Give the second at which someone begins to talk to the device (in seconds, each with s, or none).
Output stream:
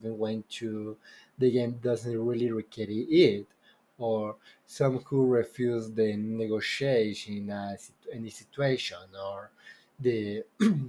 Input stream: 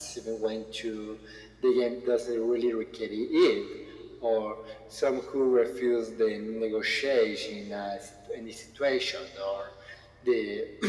none